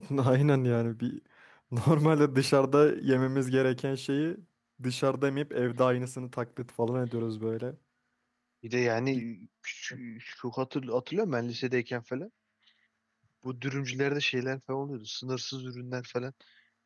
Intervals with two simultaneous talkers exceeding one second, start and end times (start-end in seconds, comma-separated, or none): none